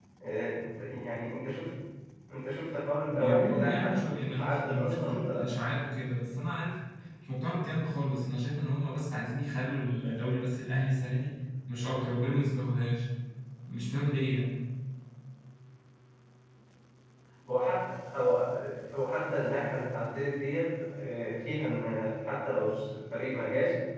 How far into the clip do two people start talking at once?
3.1 s

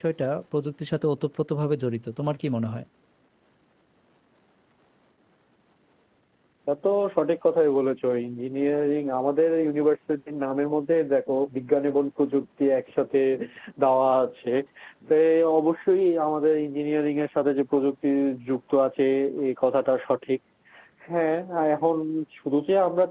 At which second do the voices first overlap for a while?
none

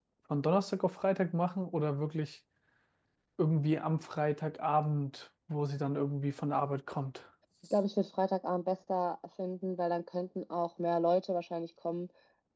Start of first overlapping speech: none

